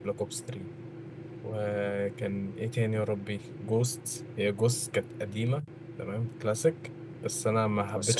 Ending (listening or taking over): listening